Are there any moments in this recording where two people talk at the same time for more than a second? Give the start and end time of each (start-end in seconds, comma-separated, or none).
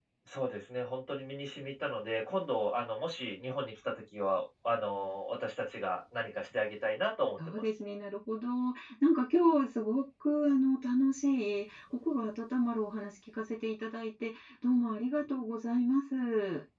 none